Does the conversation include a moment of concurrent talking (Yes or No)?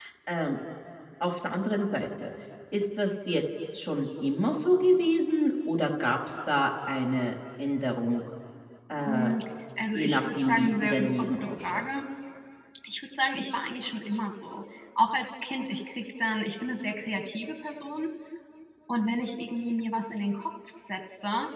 Yes